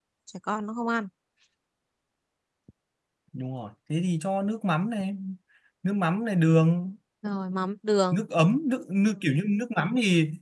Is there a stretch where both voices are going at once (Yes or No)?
No